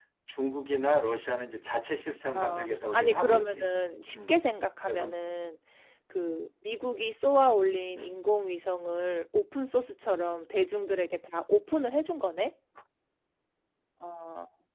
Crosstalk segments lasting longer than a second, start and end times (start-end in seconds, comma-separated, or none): 2.4-3.6